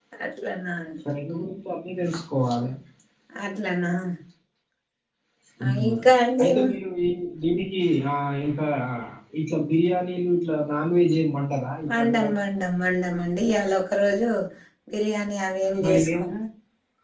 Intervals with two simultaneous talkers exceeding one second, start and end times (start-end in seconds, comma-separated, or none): none